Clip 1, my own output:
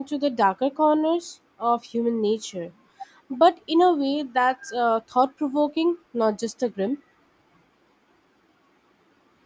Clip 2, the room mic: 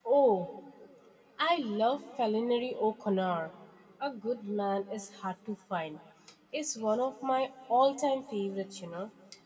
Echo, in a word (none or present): none